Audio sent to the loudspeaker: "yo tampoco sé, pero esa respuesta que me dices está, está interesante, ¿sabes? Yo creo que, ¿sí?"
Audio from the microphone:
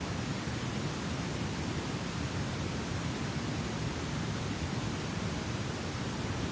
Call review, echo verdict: none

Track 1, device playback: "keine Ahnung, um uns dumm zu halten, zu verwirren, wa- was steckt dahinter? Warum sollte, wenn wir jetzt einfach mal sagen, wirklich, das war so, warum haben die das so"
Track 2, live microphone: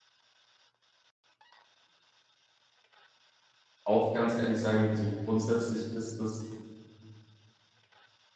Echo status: none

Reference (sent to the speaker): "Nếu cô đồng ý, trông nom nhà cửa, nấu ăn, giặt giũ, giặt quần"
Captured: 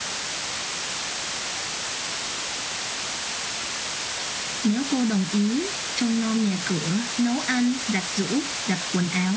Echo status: present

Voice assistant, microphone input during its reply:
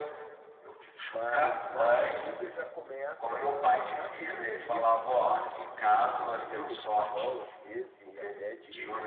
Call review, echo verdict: present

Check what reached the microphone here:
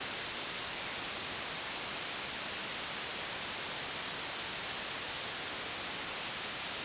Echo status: none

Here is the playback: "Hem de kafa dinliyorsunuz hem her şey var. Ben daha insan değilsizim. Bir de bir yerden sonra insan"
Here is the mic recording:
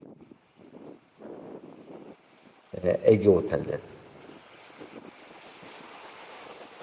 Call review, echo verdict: none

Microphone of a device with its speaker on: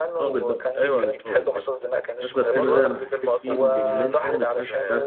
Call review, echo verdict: present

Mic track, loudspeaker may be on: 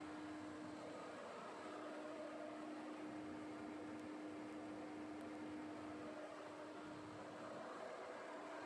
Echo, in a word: none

